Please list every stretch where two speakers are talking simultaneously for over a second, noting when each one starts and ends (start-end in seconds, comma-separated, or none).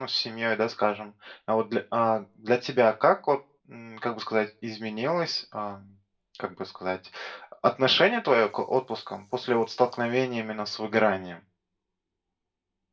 none